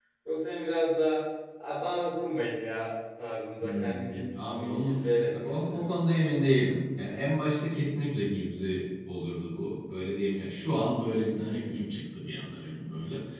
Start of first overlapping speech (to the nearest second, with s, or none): 4 s